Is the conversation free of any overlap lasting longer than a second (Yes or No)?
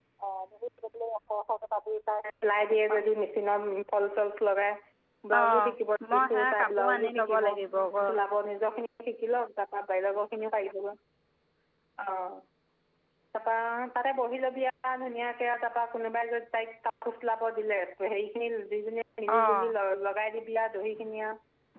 No